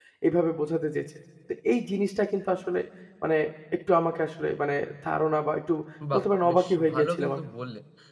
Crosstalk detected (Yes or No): Yes